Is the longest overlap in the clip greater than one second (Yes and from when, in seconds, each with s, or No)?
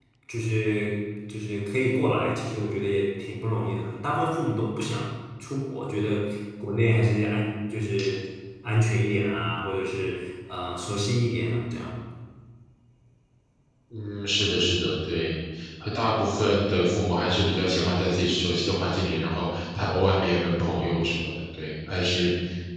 No